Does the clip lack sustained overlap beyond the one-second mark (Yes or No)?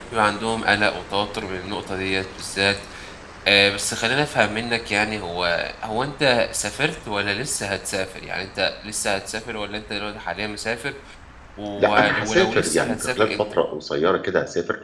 No